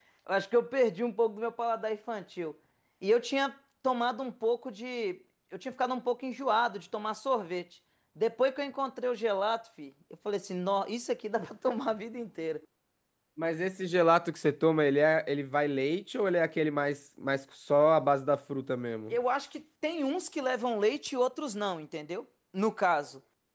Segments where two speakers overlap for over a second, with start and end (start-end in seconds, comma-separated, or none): none